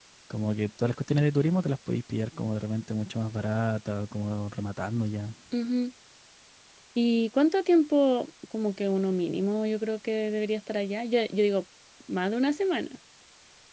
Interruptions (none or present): none